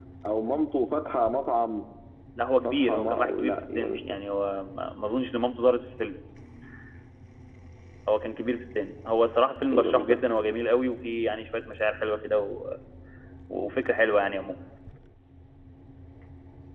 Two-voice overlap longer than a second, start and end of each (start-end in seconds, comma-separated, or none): 2.5-4.2